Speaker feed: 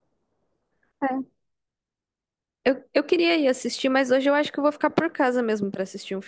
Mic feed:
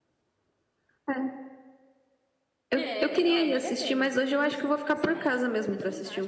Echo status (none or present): present